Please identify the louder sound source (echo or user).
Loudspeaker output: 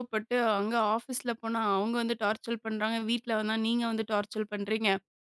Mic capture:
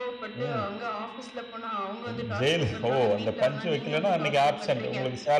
user